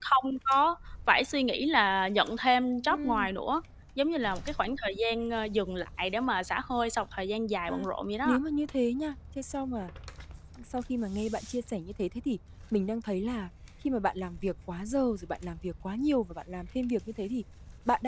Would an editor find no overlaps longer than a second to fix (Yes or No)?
Yes